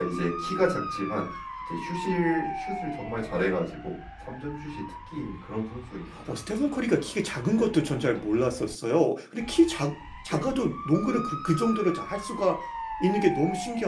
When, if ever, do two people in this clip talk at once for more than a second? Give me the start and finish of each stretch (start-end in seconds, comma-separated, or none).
none